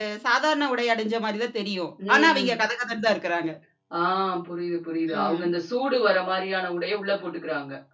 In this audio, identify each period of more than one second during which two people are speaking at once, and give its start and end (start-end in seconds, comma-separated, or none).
none